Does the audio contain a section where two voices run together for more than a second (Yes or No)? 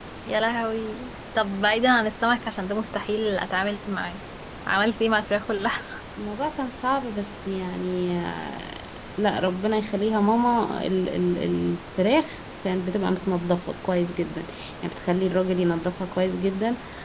No